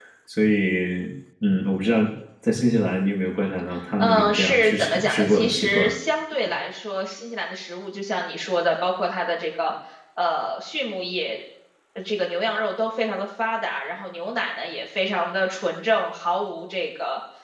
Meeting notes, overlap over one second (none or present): present